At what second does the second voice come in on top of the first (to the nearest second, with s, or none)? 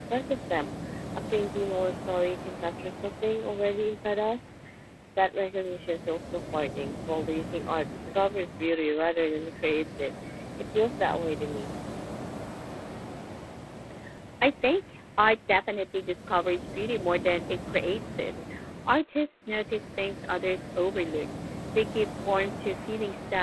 none